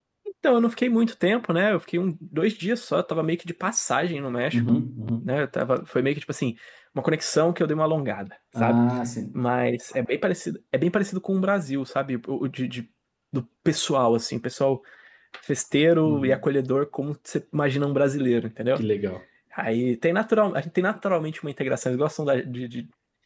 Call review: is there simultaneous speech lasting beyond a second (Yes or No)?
No